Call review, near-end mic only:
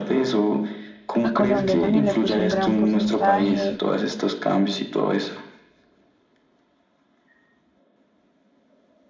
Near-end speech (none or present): present